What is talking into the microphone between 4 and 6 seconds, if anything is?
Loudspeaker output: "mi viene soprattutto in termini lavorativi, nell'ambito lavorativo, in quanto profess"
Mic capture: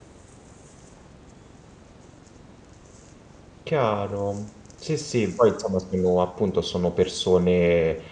user only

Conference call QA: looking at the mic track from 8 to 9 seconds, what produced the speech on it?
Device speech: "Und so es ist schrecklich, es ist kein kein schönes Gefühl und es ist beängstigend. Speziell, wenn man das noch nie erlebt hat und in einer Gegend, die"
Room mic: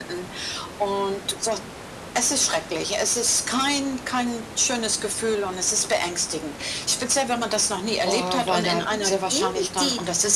both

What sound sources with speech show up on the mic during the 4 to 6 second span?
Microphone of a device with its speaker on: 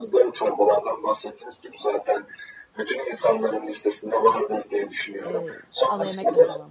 both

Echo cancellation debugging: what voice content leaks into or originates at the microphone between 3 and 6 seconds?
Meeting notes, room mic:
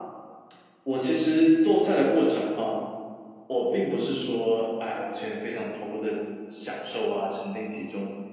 echo only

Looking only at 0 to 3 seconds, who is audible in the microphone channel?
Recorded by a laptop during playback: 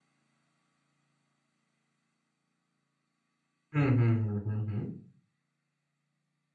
neither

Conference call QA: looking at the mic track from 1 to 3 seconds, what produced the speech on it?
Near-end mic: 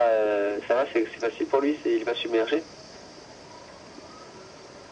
echo only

